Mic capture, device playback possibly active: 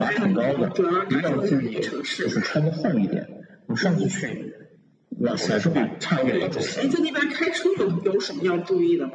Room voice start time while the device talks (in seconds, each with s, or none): 5.4 s